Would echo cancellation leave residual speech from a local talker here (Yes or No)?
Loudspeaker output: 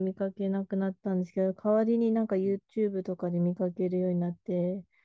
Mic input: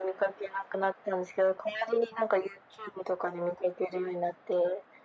No